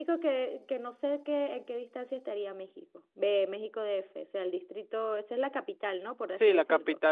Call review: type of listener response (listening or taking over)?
taking over